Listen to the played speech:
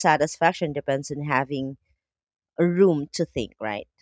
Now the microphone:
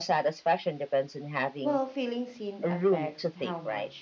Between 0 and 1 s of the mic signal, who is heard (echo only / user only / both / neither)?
echo only